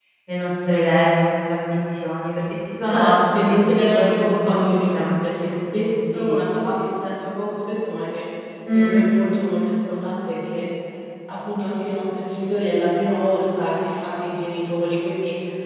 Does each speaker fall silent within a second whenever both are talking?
No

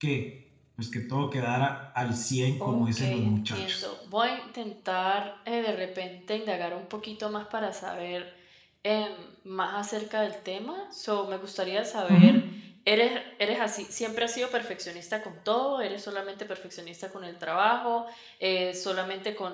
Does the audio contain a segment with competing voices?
Yes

